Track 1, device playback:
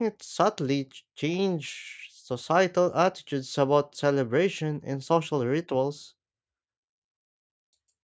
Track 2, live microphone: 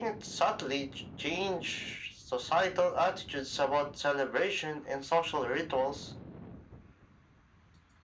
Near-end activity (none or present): none